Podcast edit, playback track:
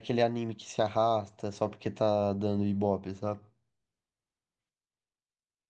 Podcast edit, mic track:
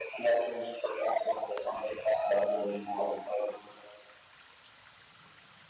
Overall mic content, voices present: echo only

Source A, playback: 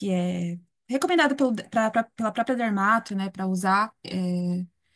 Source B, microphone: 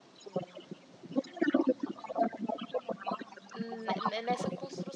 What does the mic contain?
both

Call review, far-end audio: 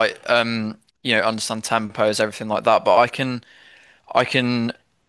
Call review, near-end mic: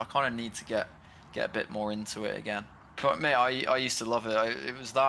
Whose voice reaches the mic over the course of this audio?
user only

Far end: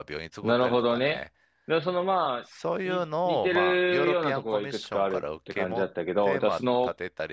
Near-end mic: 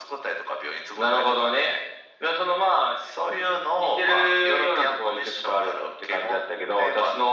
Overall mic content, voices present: echo only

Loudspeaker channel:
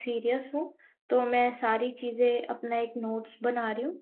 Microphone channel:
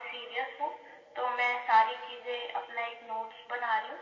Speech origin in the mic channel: echo only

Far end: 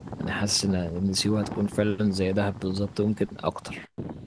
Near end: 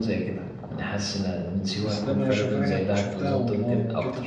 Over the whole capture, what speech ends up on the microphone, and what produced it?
both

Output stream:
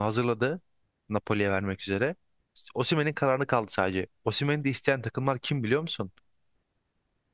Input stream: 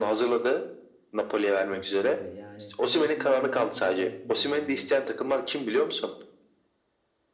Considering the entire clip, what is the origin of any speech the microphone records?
both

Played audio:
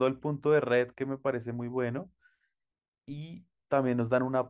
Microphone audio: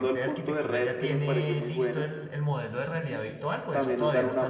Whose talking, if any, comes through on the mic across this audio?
both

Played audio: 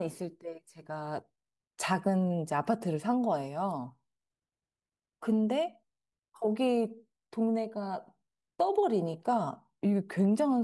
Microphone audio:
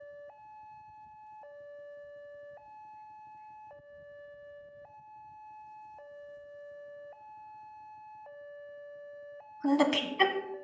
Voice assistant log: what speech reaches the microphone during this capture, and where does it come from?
user only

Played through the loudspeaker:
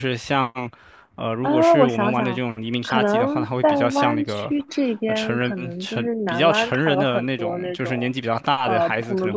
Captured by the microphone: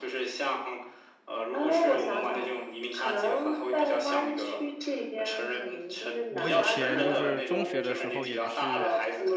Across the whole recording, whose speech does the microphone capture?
both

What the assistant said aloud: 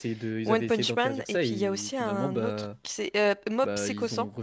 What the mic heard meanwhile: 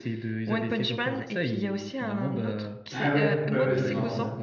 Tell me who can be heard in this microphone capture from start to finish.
both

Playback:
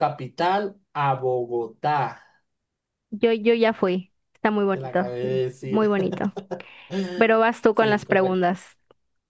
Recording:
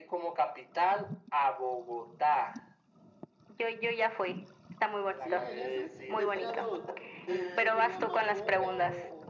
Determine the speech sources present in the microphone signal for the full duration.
both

